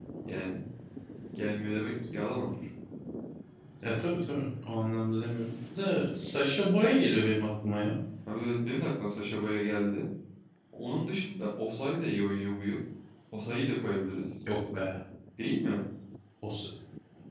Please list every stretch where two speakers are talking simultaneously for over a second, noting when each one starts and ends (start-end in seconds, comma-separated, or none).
none